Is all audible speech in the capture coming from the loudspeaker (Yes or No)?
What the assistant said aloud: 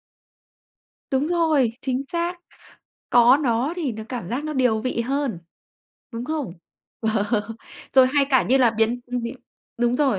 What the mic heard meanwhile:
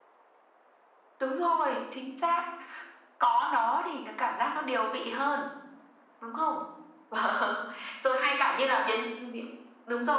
Yes